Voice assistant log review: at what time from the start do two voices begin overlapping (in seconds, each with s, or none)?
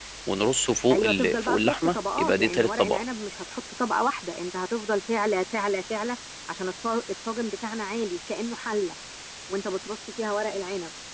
0.9 s